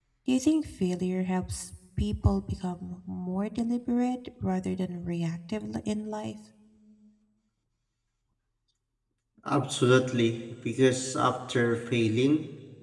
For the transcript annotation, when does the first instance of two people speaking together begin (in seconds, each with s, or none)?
none